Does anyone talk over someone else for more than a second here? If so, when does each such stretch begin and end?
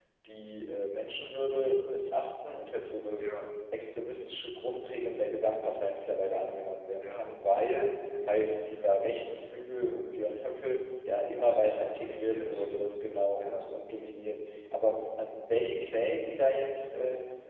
11.4-12.7

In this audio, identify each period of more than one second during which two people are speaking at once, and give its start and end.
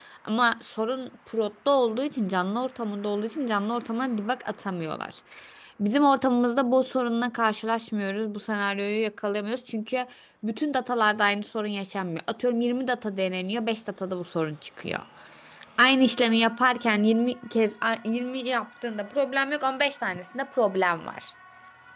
none

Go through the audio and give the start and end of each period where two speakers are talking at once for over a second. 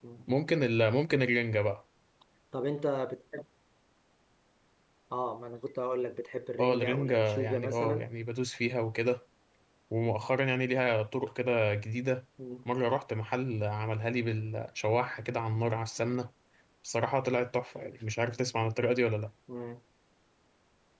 6.6-8.1

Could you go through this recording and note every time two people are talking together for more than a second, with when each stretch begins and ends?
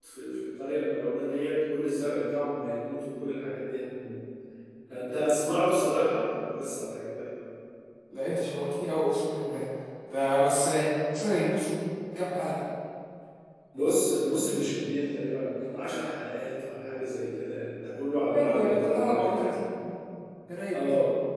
18.3-19.6

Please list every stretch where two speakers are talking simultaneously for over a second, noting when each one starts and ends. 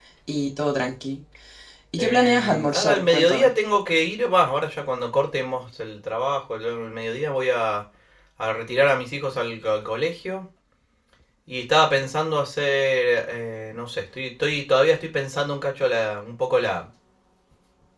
2.0-3.5

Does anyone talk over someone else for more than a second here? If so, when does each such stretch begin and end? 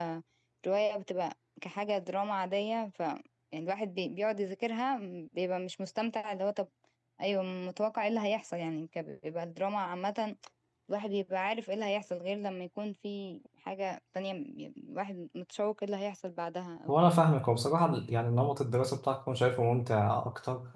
none

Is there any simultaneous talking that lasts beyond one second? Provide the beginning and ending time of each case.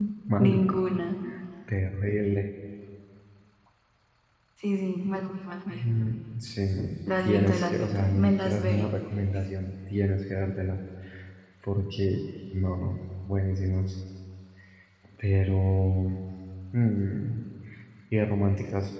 7.2-8.9

